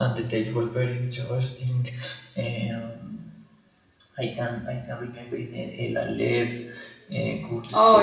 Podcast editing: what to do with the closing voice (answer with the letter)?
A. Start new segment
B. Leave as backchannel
B